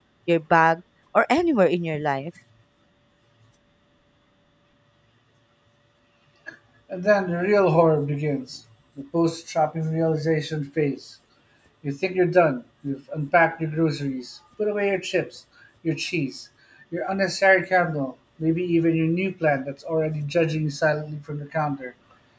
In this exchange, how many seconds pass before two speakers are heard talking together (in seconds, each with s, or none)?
none